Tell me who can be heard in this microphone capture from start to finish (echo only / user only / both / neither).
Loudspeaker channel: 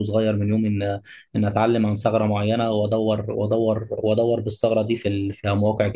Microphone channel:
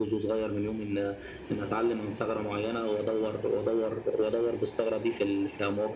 echo only